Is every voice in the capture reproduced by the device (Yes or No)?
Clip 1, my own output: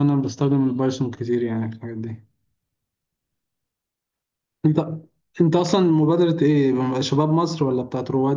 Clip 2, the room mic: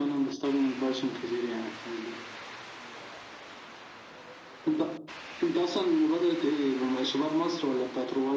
Yes